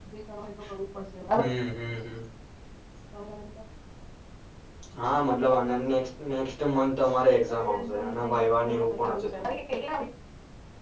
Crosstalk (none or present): present